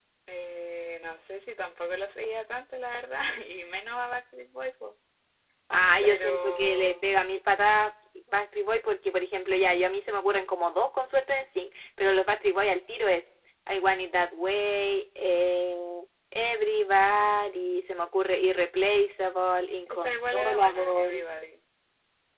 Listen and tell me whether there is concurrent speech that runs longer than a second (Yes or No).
Yes